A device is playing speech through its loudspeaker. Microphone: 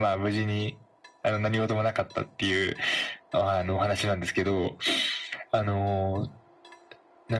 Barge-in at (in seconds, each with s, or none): none